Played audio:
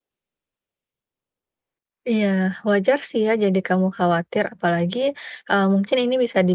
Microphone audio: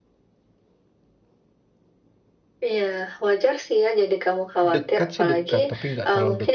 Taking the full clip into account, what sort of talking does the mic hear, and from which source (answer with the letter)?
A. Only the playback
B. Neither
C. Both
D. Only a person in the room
C